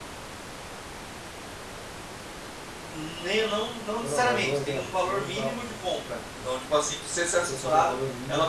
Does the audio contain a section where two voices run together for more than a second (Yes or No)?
Yes